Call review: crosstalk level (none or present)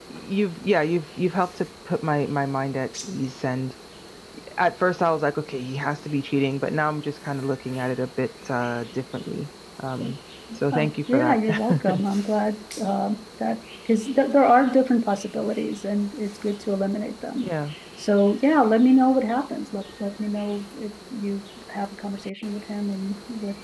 present